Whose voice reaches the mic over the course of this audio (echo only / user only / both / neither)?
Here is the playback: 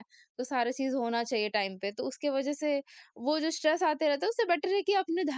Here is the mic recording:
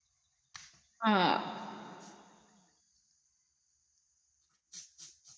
user only